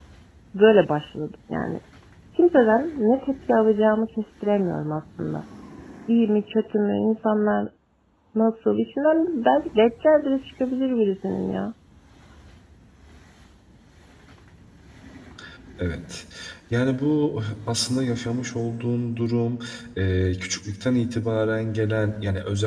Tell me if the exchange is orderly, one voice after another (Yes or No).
Yes